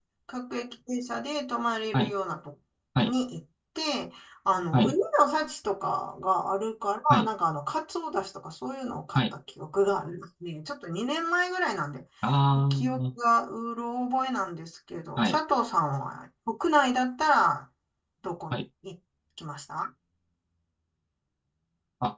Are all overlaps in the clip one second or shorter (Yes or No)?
Yes